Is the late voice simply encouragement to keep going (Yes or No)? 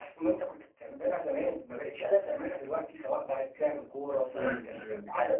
No